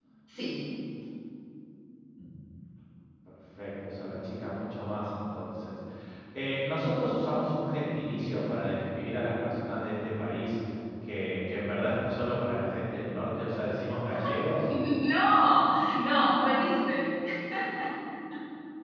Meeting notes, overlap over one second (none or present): none